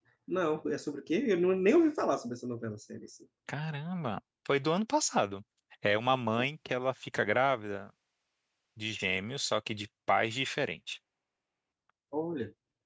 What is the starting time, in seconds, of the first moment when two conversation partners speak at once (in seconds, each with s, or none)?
none